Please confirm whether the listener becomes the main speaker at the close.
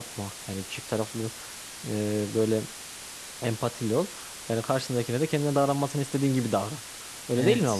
Yes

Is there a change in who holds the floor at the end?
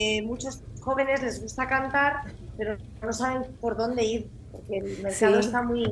No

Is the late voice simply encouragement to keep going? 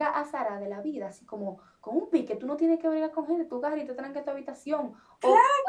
Yes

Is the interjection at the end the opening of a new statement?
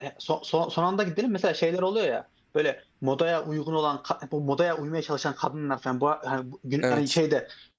No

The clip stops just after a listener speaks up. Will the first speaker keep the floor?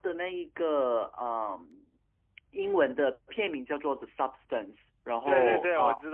No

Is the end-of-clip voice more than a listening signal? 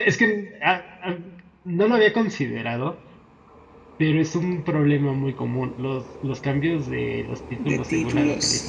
Yes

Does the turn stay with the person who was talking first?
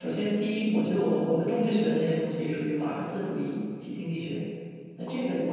Yes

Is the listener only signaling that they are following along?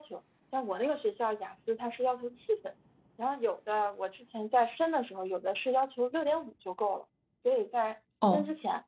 Yes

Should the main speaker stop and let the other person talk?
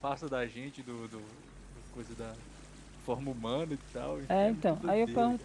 Yes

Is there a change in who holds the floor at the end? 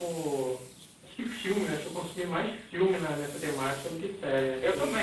Yes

